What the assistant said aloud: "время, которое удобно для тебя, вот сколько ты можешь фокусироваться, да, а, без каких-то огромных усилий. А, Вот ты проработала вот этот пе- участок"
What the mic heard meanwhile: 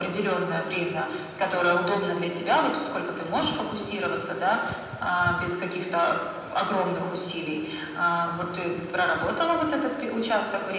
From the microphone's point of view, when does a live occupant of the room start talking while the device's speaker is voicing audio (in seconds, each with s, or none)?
none